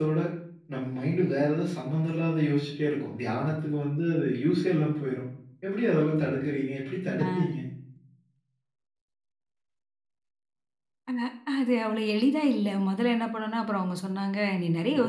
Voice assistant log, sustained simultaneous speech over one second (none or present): none